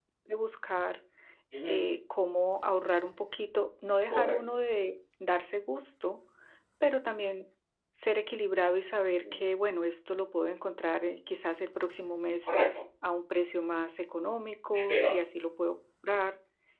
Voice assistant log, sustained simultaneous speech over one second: none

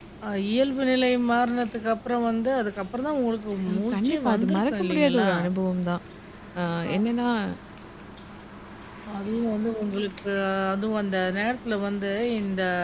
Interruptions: present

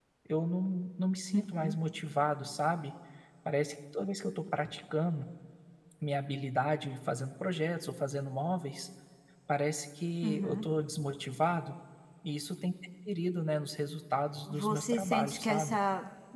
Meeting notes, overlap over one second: present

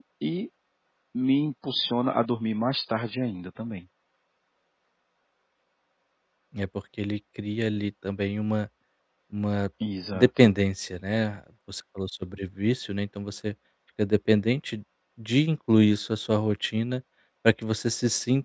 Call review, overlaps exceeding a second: none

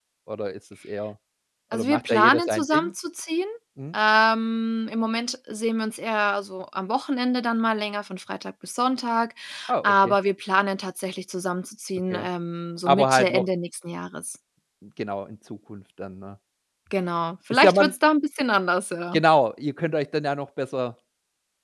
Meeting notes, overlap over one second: present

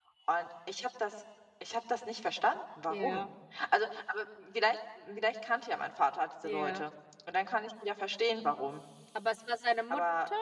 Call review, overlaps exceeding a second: none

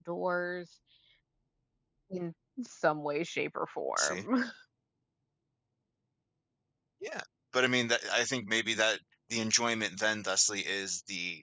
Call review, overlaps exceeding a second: none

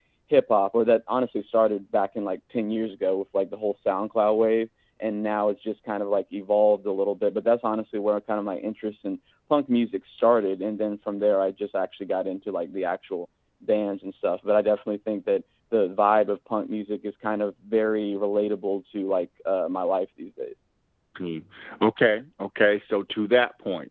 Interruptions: none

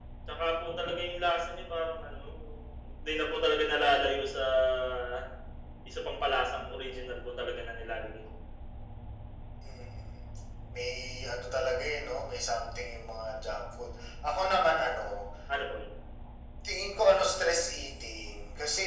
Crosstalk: none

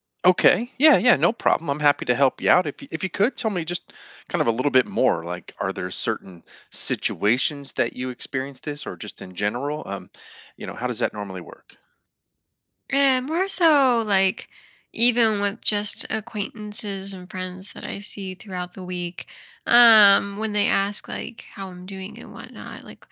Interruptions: none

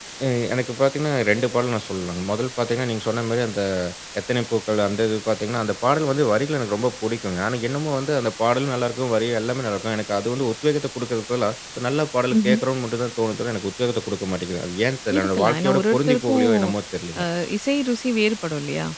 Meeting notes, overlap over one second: present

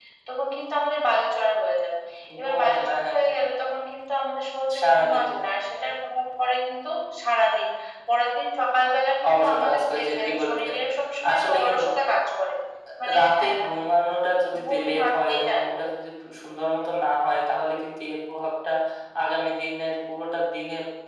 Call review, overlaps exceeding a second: present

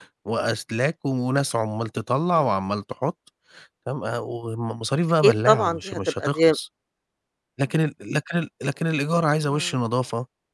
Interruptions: present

